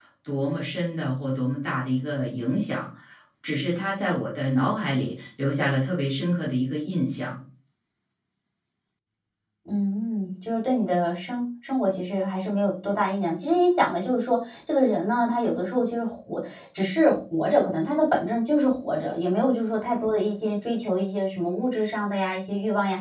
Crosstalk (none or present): none